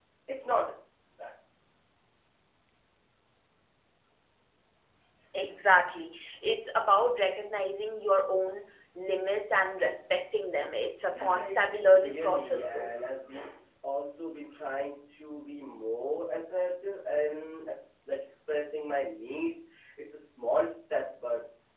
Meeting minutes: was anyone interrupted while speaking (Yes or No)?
Yes